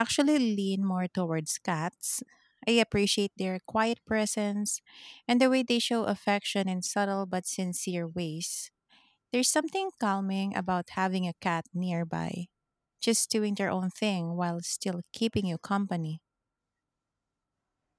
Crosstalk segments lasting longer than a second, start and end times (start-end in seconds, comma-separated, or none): none